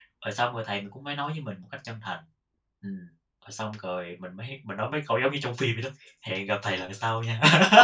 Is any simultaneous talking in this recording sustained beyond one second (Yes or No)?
No